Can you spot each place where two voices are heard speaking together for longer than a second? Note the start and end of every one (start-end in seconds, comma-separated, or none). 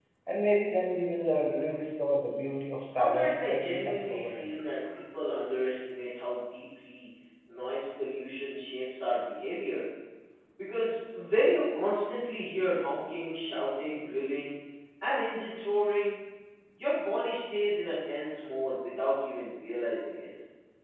2.9-4.5